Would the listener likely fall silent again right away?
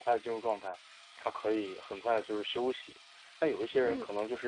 Yes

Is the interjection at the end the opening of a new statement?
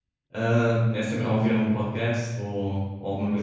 Yes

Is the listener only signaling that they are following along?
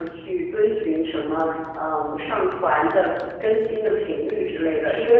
Yes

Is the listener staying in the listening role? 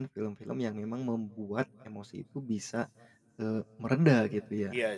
No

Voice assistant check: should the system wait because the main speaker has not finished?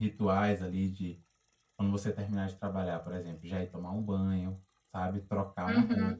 Yes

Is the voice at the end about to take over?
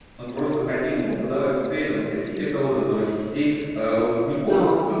No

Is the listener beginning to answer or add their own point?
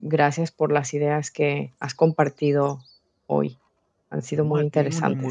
Yes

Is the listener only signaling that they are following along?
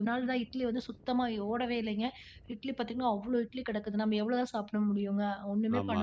Yes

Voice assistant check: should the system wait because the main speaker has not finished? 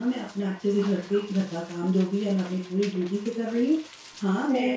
Yes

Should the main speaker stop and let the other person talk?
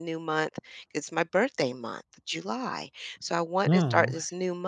No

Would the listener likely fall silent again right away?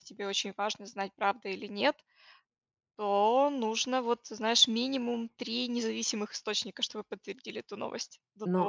No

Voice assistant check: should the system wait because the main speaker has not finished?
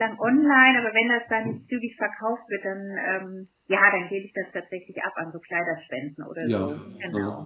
No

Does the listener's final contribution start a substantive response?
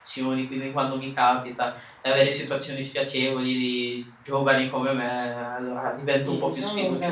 Yes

